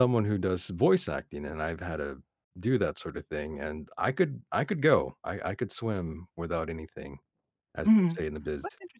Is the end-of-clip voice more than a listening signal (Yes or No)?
Yes